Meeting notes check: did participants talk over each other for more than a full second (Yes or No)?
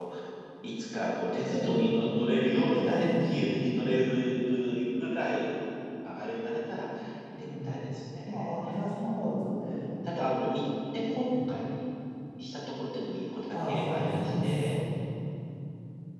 Yes